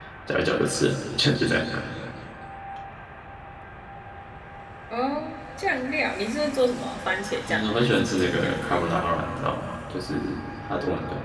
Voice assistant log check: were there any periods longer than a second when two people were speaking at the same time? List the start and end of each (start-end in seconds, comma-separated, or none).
7.5-8.8